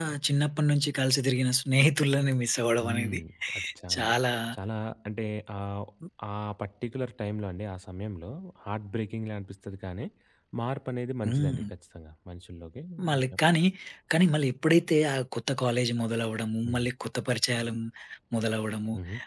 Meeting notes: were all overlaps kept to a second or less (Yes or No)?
Yes